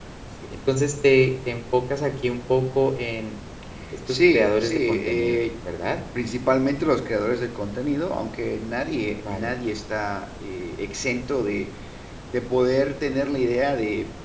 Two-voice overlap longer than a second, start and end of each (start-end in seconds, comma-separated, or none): 4.1-5.4